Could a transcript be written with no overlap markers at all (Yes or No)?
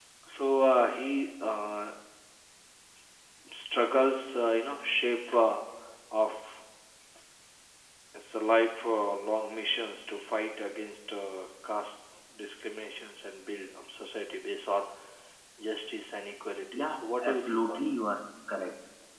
No